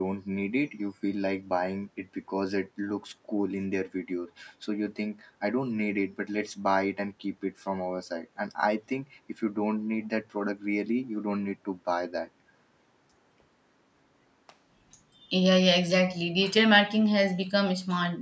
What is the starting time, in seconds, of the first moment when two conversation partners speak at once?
none

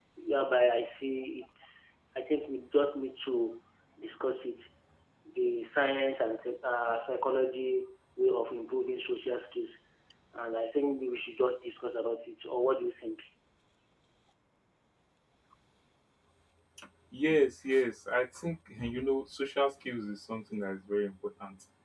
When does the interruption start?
none

